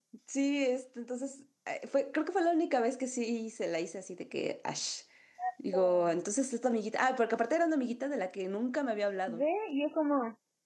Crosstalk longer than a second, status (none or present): none